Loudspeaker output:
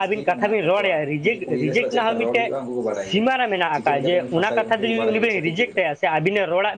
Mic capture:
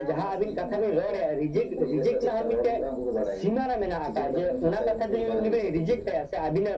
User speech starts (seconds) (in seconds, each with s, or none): none